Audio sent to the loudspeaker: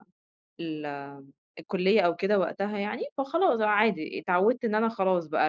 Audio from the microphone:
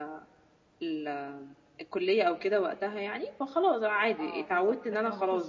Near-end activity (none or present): present